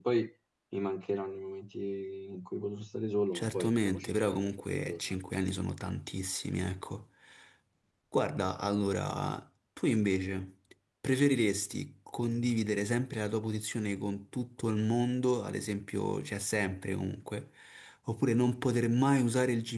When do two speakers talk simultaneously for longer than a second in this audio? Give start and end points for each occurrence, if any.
3.4-5.2

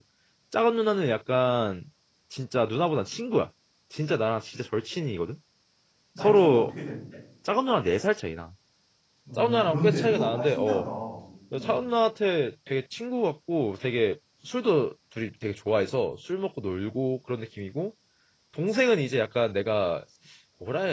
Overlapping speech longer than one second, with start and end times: 9.4-10.8

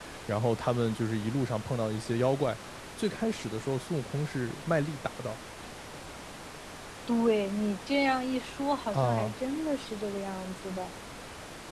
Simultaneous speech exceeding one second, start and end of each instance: none

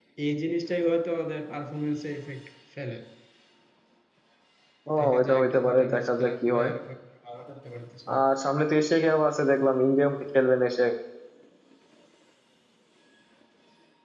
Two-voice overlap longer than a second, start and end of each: 5.2-6.7

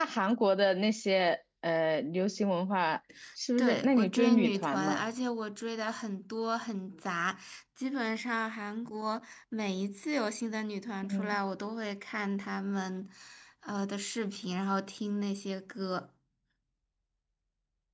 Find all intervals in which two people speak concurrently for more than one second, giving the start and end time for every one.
3.6-5.0

